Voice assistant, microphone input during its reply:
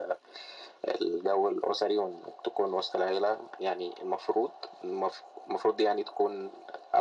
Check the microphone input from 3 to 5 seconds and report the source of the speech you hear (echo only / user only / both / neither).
echo only